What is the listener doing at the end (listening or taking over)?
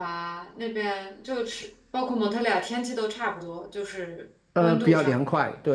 taking over